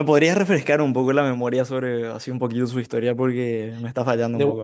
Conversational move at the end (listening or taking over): taking over